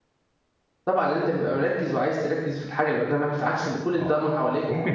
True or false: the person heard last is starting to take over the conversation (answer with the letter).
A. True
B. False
A